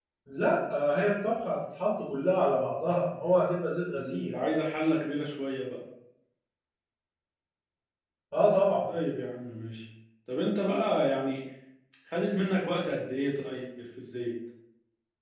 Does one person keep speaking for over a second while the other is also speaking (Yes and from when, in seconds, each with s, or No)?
No